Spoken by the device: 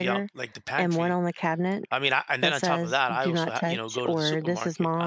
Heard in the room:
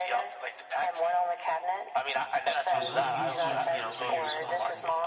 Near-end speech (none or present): present